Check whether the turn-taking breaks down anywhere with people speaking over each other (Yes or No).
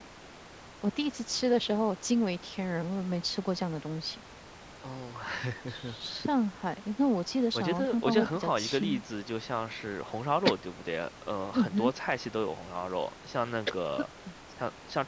Yes